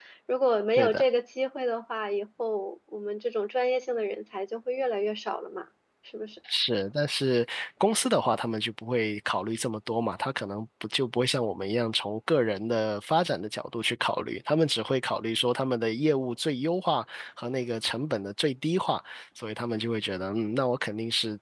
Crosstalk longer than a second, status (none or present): none